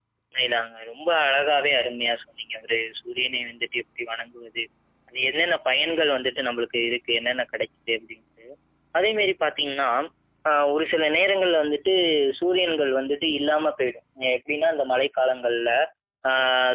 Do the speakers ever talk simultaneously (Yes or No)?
No